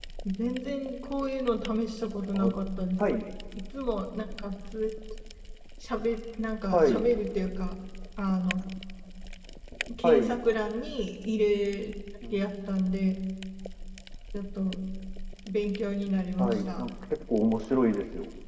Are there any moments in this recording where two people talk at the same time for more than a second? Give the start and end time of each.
none

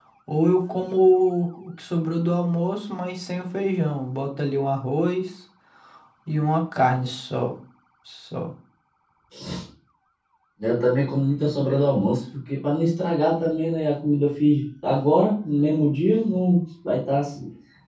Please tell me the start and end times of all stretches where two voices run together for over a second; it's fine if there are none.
none

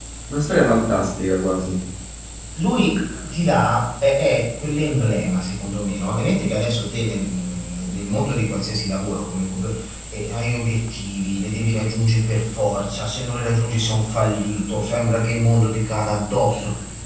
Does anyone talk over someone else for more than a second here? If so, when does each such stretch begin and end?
none

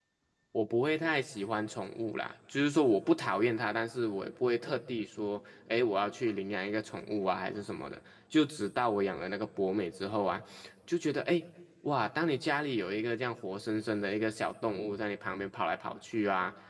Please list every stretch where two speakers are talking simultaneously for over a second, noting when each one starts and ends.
none

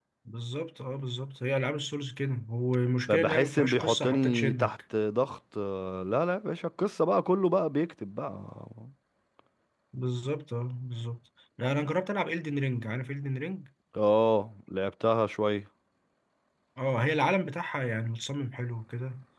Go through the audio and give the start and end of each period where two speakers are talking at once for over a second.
3.1-4.7

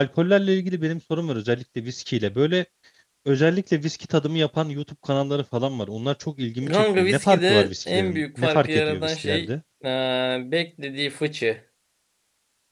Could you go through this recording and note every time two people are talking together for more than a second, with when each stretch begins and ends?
6.7-9.5

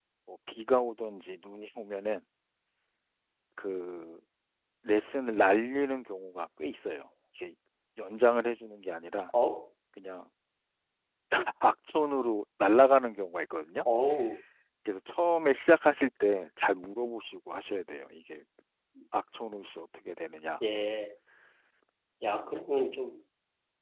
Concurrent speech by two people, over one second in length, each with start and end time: none

